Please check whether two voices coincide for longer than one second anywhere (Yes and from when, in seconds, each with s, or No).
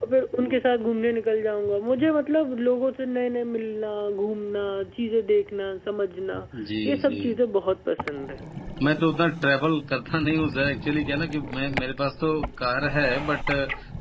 No